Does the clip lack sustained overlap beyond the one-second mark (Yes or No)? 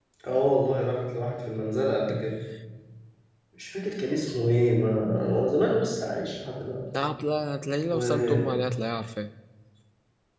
Yes